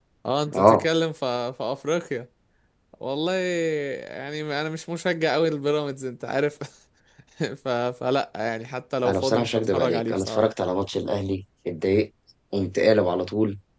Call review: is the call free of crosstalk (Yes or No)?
No